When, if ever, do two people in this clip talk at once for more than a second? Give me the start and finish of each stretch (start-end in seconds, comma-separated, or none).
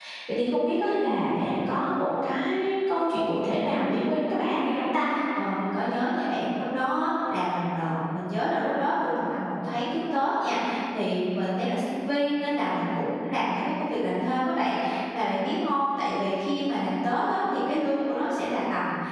none